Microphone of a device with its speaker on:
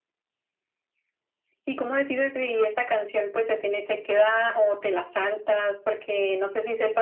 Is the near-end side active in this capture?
No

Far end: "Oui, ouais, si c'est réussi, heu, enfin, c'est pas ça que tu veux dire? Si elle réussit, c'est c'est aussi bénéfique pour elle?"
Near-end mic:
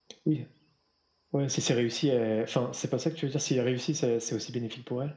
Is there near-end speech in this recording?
No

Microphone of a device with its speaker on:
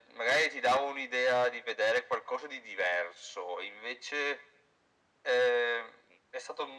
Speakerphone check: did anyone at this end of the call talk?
No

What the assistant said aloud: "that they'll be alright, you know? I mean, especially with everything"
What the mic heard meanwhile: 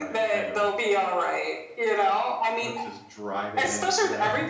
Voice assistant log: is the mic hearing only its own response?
No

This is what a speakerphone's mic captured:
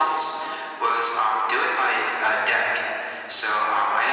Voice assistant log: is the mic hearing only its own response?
Yes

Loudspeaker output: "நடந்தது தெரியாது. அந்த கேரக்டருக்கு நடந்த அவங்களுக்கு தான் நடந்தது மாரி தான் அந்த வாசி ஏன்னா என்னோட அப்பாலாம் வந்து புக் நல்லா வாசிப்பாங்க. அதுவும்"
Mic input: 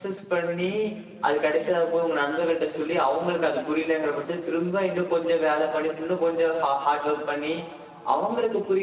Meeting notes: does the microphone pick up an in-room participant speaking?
Yes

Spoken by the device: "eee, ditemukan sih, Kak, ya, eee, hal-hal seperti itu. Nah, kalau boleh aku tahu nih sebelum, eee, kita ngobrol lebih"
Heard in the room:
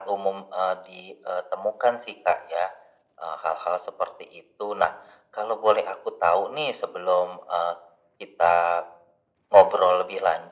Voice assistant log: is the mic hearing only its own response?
Yes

